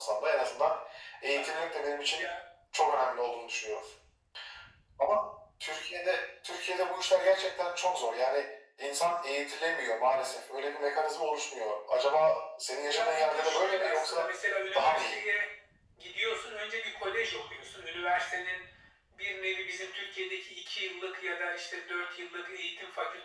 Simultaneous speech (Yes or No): Yes